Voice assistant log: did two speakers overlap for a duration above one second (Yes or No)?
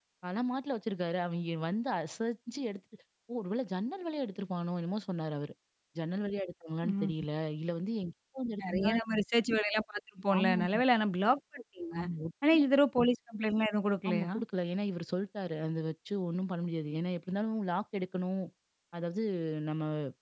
No